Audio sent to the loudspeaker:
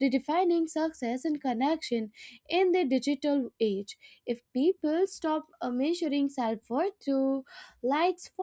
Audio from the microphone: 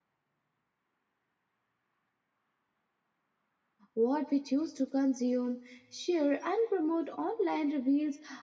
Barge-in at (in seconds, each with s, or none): 3.9 s